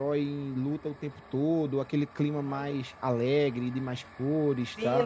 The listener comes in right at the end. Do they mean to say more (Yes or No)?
Yes